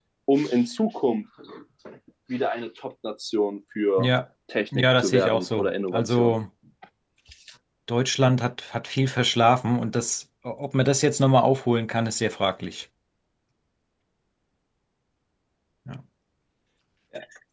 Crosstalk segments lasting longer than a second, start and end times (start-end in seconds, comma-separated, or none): 4.8-6.3